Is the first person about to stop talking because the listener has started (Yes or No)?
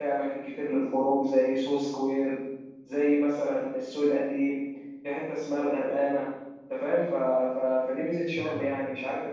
No